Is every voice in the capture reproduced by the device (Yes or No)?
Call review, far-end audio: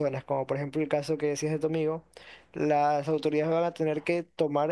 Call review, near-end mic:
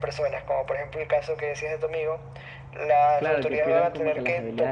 No